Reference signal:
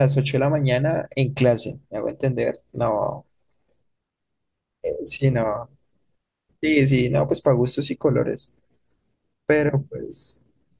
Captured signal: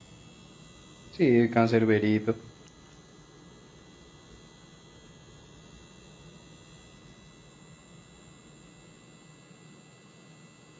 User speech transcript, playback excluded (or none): Sí, Cancerberito.